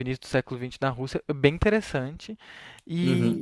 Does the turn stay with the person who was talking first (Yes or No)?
No